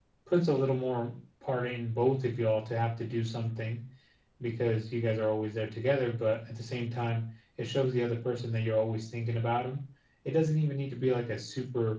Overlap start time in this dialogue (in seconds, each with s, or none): none